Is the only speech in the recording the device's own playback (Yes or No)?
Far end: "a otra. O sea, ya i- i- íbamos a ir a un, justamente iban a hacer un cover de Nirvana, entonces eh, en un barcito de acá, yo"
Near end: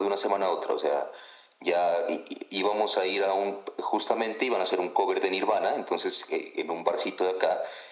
Yes